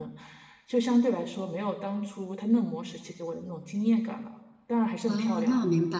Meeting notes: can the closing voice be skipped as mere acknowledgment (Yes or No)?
No